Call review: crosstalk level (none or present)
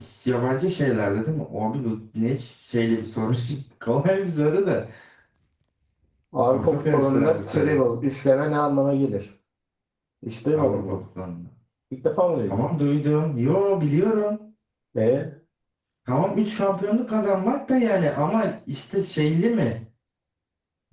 present